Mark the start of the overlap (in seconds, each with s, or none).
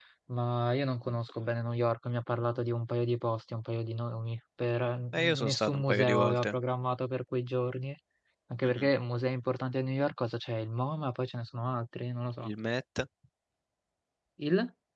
5.1 s